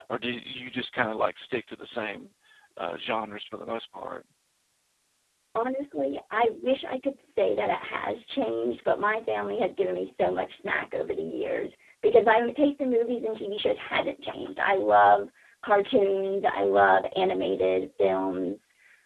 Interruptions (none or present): none